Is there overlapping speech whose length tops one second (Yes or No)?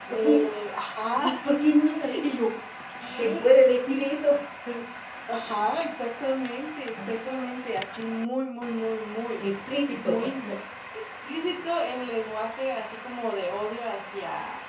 No